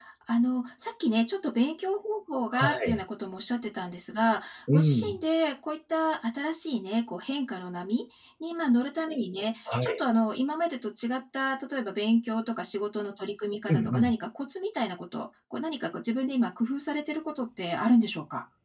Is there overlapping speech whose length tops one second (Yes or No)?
No